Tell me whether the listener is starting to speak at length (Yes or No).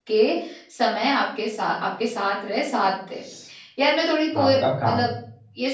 No